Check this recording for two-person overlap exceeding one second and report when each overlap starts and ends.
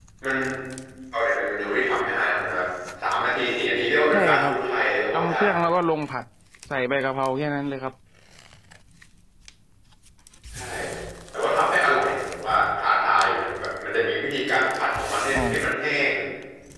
none

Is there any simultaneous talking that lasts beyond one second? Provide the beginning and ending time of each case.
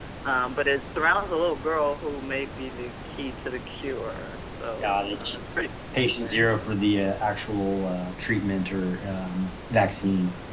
none

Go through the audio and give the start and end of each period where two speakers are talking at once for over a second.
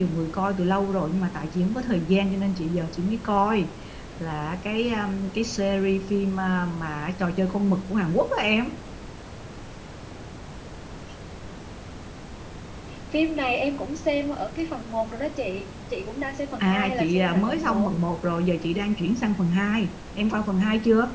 16.6-17.9

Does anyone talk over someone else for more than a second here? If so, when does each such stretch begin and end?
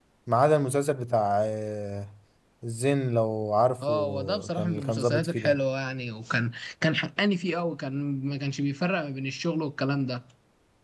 3.8-5.6

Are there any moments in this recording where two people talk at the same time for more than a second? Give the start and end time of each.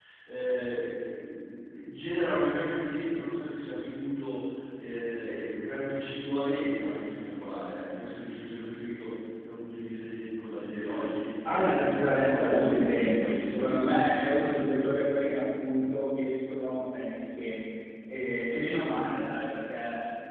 11.4-14.1

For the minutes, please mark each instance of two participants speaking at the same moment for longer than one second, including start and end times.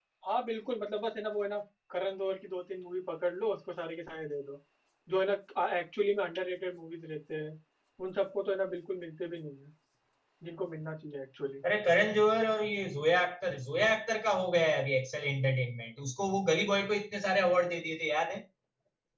none

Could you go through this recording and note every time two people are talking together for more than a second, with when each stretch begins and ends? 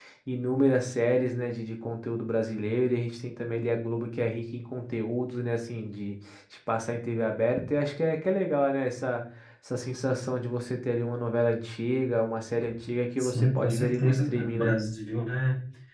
13.2-14.8

